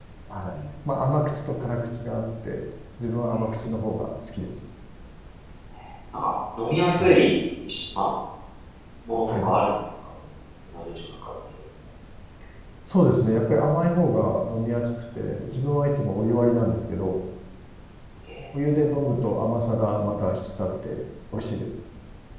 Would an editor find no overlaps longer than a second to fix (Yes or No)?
Yes